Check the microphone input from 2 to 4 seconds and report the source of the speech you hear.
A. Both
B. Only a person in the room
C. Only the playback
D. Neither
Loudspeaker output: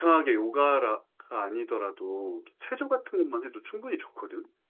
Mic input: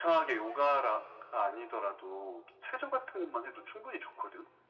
C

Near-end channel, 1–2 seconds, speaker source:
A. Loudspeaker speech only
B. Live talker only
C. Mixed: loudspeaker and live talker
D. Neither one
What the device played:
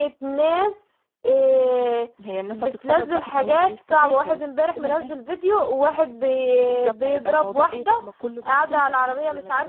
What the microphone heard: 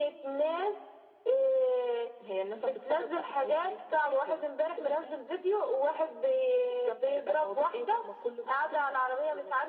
A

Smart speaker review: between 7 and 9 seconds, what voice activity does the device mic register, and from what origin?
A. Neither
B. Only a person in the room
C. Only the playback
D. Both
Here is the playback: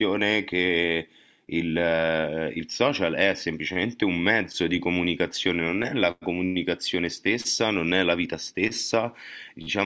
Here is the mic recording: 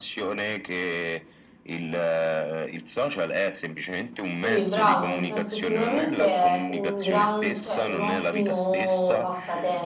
D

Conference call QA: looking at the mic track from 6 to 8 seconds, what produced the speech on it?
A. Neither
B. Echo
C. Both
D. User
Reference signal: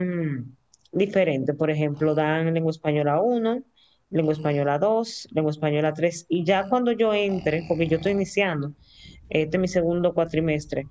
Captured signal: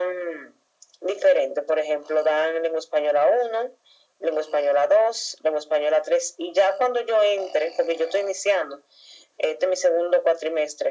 B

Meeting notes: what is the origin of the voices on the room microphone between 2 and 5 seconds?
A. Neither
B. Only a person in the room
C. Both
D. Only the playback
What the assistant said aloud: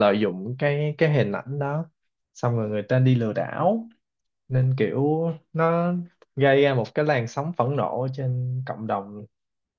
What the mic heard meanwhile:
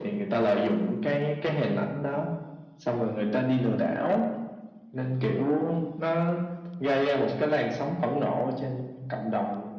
D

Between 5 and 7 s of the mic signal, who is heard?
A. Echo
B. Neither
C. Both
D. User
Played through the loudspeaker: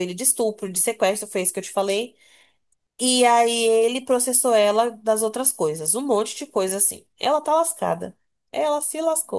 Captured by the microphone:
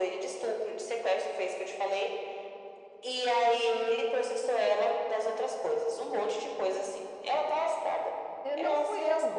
A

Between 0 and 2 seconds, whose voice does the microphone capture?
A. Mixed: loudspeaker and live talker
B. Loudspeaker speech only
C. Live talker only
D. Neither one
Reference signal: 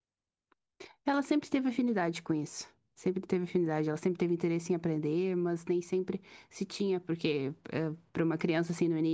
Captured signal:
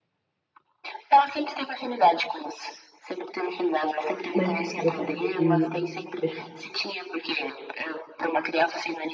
B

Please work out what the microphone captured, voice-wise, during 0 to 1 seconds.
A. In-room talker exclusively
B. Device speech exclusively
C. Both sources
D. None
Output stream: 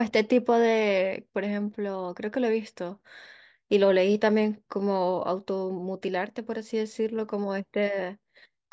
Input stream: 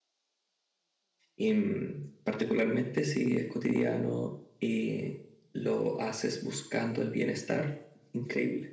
D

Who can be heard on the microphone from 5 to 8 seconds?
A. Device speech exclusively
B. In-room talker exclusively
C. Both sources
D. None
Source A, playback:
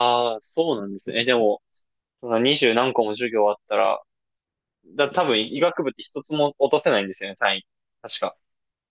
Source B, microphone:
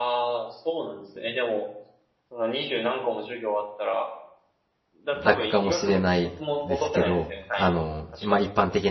C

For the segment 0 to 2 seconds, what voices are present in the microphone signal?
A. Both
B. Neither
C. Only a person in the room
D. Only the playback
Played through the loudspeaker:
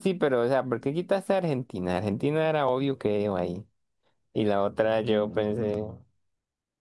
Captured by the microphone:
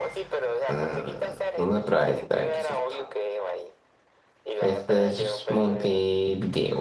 A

